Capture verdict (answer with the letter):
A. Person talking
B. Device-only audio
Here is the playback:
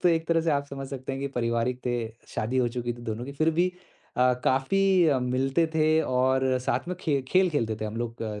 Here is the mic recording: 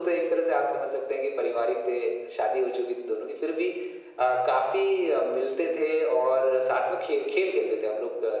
B